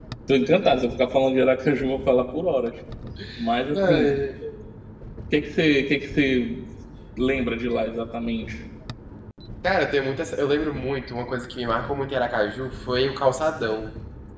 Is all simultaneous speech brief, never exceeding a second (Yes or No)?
Yes